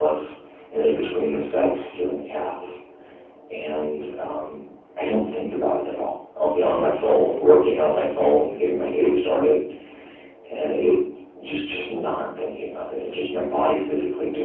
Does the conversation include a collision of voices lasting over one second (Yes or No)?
No